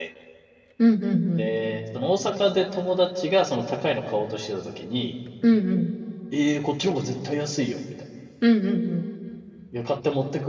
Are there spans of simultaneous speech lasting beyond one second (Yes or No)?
No